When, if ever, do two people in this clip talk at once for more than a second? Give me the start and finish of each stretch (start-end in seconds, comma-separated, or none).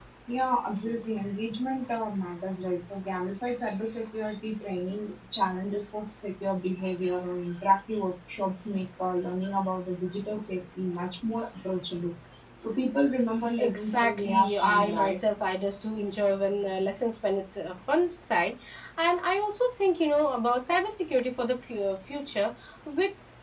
13.6-15.1